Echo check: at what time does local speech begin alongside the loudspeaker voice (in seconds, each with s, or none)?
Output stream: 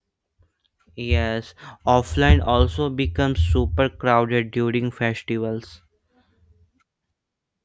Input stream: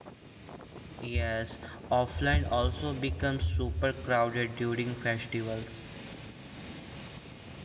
none